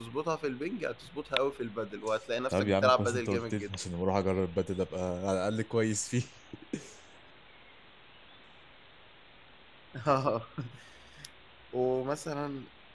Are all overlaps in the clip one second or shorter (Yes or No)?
No